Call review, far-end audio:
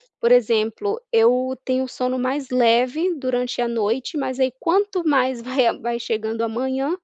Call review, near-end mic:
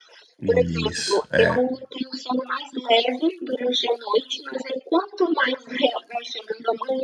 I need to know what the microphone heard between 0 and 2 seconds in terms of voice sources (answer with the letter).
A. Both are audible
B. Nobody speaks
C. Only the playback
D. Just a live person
A